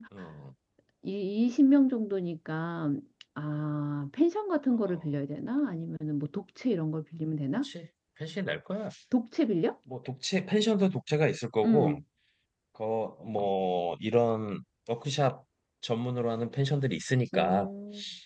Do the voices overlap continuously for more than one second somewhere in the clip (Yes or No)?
No